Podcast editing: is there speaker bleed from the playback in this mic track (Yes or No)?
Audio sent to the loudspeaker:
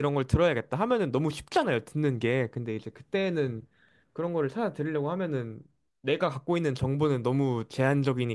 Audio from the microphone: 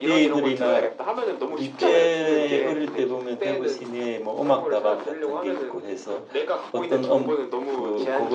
Yes